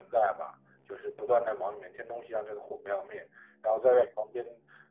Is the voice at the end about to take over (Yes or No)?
No